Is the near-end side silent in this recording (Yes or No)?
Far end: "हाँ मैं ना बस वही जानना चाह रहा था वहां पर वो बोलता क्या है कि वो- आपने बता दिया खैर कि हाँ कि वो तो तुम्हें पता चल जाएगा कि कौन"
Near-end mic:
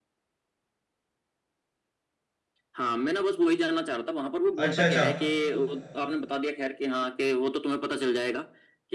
No